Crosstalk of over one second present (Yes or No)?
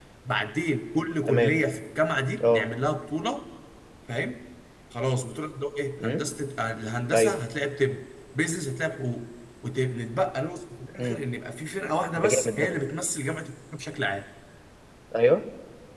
No